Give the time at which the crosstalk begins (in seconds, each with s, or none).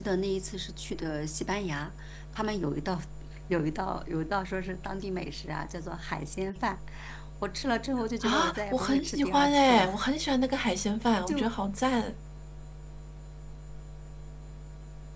8.2 s